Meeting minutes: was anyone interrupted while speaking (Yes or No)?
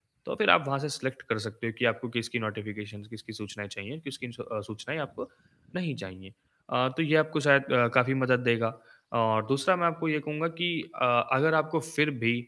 No